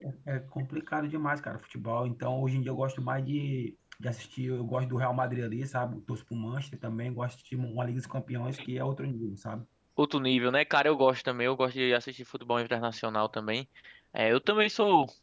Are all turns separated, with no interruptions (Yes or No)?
Yes